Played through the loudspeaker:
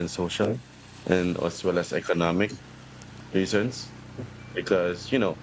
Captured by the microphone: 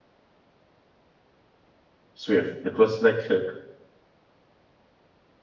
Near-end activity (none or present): present